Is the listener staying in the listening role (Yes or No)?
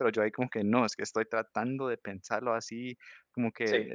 Yes